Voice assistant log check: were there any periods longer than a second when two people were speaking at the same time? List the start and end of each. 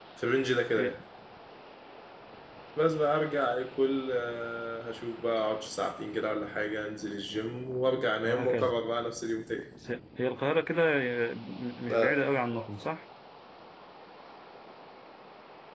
none

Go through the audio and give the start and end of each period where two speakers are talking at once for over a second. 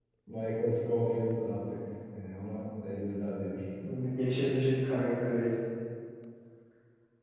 none

